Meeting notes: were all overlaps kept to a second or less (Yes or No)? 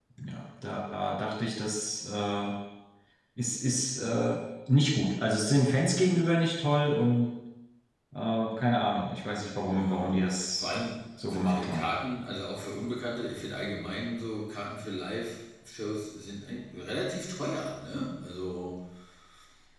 Yes